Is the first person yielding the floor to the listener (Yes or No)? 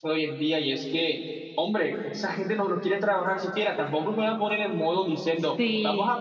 No